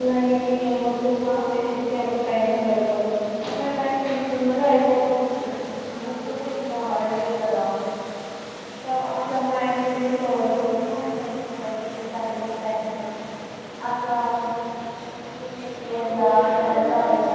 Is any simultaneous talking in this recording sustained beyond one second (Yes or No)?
Yes